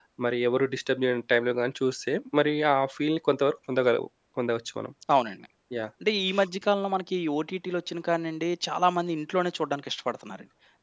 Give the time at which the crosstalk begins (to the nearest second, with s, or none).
none